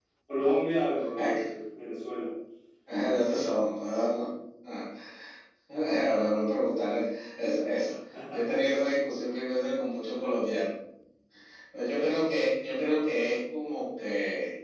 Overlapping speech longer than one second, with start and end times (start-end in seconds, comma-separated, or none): none